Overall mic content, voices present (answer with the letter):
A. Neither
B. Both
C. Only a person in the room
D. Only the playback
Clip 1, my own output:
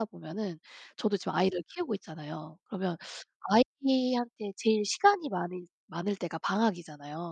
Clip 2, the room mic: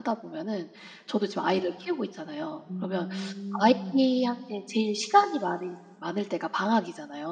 B